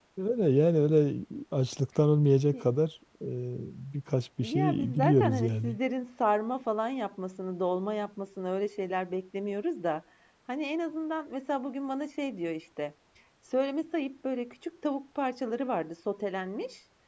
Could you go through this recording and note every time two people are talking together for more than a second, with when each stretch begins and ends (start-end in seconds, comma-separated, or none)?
4.4-5.8